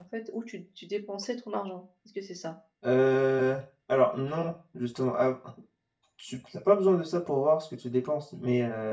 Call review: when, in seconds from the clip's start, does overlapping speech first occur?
none

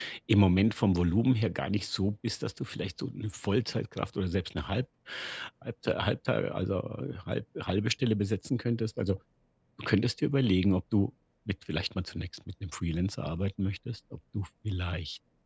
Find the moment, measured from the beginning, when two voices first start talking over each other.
none

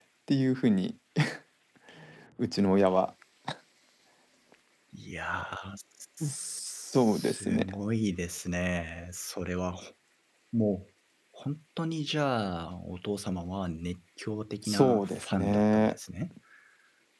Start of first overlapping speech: 6.2 s

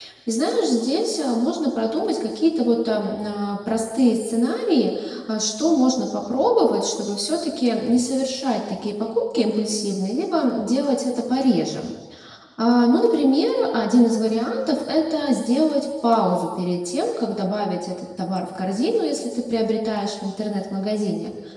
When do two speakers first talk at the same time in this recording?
none

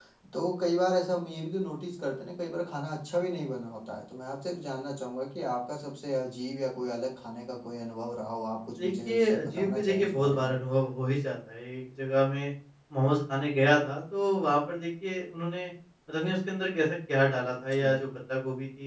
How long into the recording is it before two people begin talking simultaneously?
8.8 s

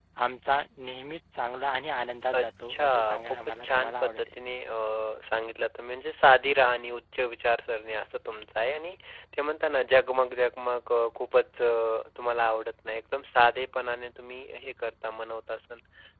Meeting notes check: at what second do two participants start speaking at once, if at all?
2.3 s

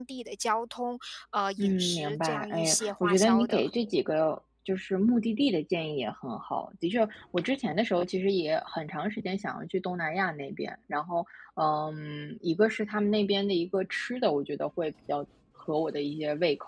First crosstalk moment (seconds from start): 1.6 s

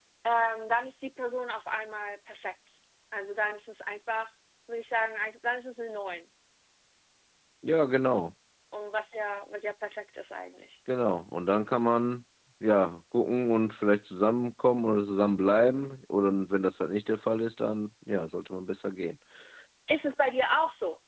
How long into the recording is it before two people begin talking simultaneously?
none

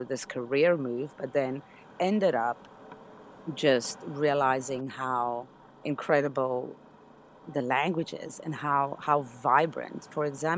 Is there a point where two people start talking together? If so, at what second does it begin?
none

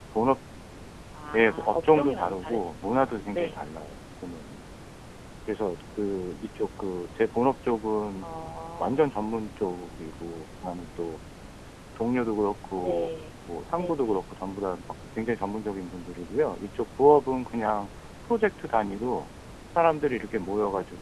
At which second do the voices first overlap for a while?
1.4 s

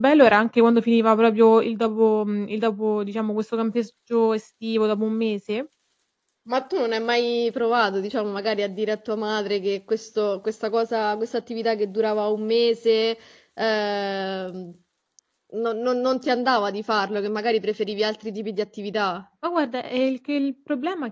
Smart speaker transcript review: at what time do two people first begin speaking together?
none

